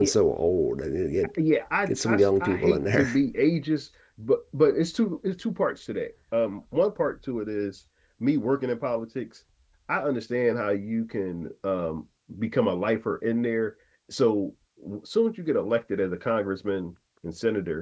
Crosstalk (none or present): present